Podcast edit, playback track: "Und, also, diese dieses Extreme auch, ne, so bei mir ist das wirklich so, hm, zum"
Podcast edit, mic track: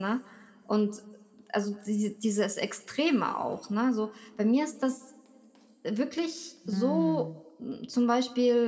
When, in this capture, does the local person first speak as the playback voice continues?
7 s

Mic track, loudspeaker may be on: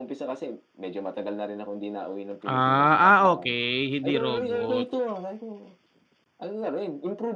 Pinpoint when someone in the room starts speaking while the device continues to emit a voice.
2 s

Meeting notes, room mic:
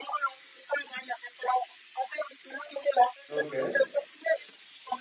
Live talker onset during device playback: 3 s

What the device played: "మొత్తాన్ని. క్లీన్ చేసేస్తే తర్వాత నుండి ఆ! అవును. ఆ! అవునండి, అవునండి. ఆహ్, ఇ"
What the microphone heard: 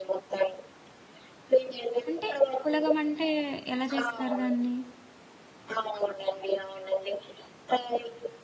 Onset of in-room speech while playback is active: 2 s

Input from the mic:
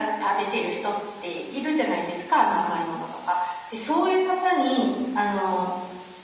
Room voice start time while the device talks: none

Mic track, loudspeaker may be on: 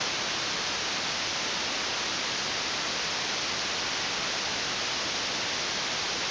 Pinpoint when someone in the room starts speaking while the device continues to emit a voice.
none

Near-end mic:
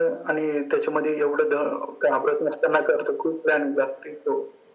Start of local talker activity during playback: none

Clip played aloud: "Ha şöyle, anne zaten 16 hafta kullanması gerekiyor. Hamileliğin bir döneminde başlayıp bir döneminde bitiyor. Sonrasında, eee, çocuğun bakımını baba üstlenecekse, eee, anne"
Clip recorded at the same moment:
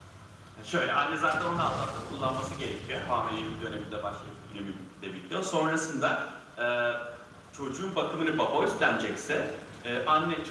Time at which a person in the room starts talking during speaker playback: none

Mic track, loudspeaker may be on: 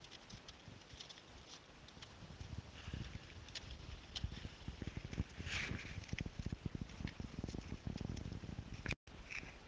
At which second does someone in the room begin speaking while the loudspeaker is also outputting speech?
none

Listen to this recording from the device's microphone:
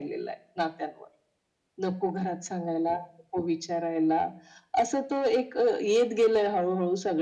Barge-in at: none

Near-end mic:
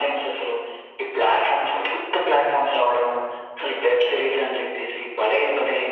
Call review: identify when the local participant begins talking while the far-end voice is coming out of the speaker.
none

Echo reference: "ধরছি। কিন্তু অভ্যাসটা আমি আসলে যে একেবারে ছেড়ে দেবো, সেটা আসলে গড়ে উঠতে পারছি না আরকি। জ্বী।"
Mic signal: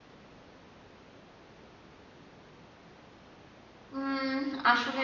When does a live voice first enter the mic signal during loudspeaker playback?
4 s

